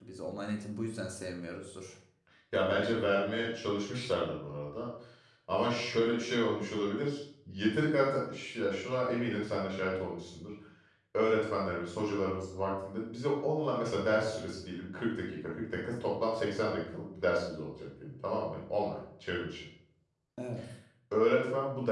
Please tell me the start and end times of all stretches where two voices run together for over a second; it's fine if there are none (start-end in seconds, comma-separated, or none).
none